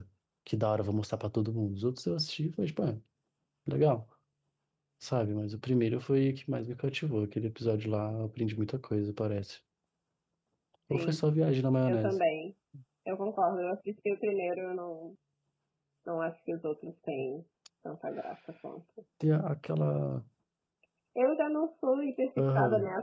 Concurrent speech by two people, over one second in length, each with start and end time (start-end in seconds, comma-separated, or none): none